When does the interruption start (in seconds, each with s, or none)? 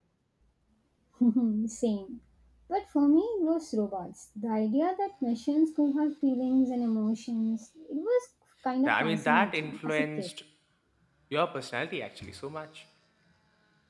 8.8 s